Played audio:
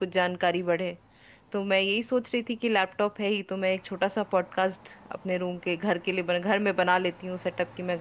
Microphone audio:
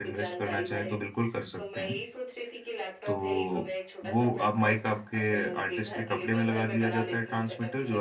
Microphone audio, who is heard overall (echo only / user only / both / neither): both